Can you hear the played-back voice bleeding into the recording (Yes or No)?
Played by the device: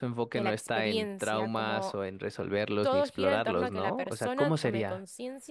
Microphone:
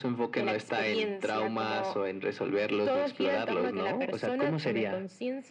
Yes